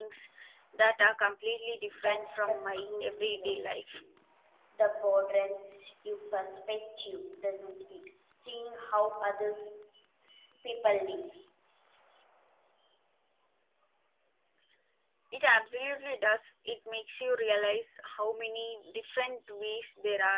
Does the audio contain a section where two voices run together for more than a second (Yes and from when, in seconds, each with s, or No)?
Yes, from 1.9 s